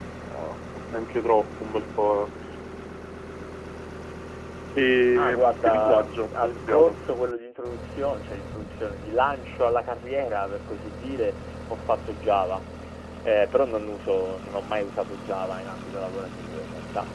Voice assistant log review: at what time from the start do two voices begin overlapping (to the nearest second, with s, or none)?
5 s